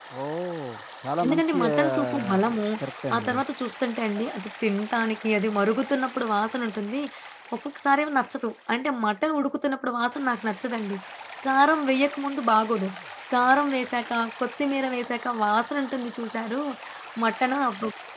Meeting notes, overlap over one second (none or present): present